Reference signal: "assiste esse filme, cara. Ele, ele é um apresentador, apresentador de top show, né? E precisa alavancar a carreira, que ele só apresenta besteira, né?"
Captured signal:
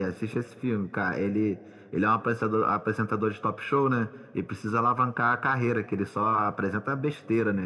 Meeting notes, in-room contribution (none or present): none